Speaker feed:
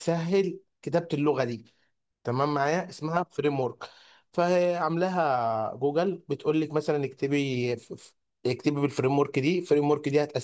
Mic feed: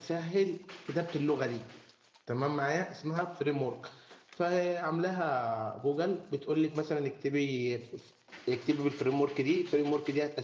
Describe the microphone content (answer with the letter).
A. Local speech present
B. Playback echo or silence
B